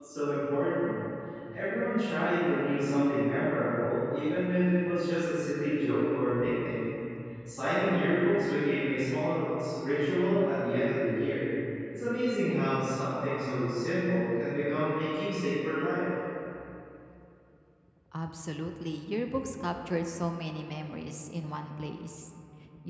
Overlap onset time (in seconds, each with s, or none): none